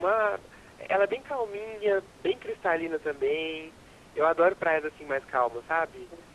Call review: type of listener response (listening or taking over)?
listening